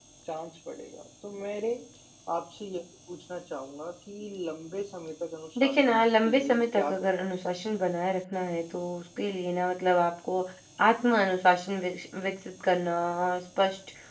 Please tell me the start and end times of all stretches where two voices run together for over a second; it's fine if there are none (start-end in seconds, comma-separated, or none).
5.6-7.3